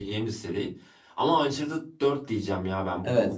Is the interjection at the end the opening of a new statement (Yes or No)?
Yes